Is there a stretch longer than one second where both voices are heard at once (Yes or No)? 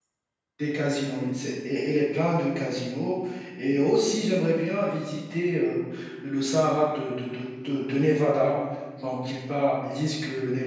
No